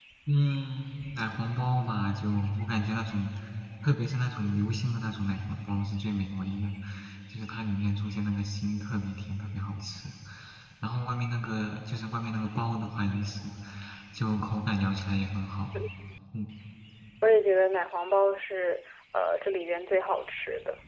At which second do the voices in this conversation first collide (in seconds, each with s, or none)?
none